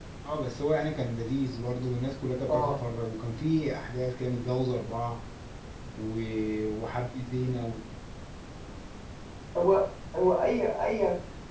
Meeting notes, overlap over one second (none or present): none